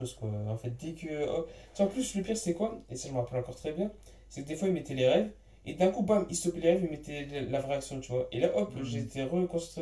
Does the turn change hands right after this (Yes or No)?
No